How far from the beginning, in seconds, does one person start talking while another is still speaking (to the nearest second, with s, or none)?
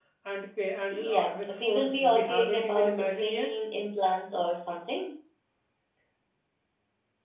1 s